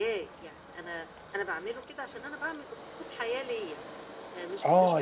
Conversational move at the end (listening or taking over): taking over